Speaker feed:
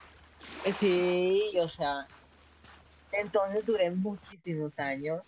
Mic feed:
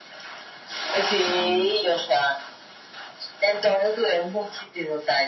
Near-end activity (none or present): present